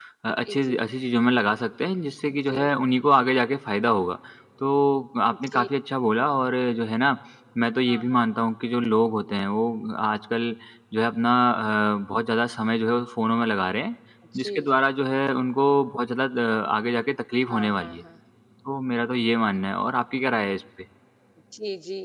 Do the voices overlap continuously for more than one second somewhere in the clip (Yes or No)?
No